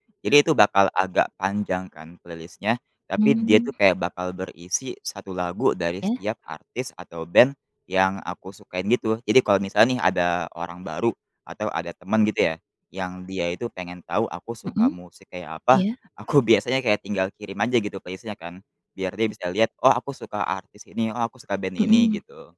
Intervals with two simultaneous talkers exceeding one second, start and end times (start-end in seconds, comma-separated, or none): none